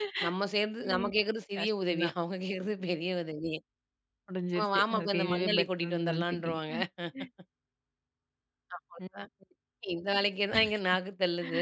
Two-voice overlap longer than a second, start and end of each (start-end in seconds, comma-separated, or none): 4.5-6.6